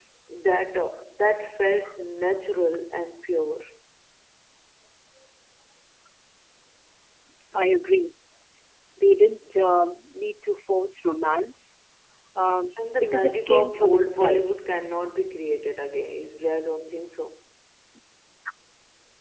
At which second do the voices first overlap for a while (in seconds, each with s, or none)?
12.9 s